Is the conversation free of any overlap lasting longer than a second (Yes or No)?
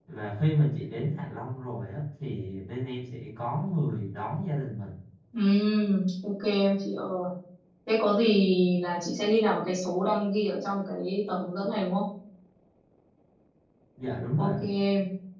Yes